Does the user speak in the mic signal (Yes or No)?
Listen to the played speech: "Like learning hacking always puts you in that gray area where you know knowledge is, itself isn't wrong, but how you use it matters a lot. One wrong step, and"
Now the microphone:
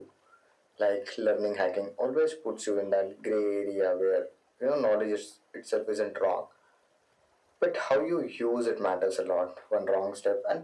No